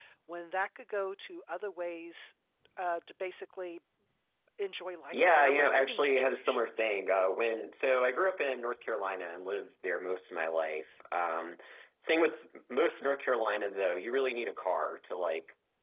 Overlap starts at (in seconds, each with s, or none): 5.1 s